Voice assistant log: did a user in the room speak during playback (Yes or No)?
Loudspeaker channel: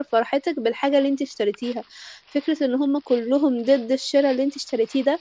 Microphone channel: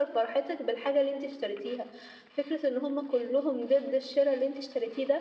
No